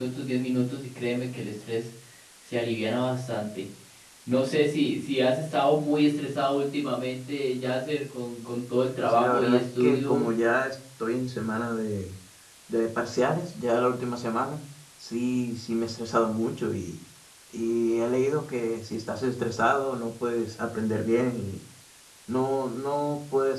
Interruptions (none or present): present